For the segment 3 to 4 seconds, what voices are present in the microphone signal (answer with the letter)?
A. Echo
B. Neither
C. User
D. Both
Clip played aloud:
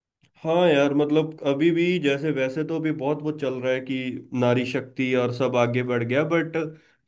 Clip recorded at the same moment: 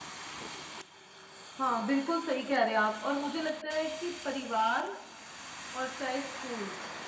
C